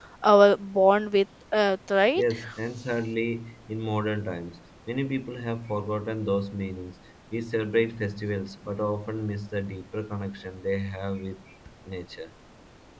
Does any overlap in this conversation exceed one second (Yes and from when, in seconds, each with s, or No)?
No